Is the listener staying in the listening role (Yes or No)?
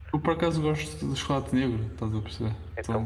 No